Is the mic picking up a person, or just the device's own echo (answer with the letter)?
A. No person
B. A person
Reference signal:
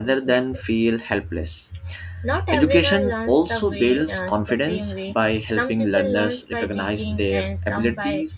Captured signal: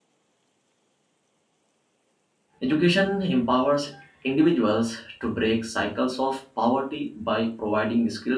B